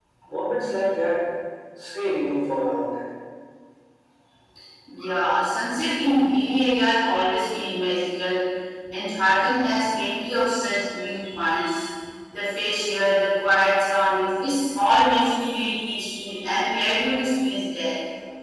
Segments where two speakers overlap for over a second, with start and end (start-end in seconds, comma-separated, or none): none